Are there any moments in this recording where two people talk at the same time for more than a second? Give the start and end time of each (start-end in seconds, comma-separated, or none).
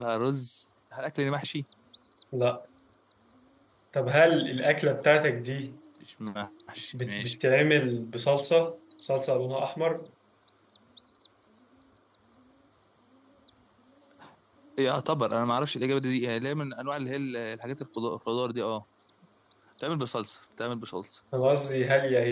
none